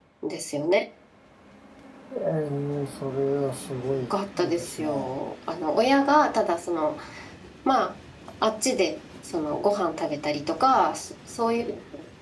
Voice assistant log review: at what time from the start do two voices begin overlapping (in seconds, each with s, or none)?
3.9 s